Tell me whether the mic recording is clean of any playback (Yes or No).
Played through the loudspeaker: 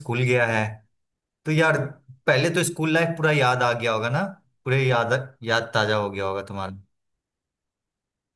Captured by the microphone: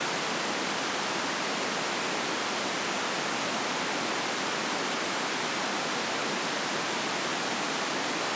Yes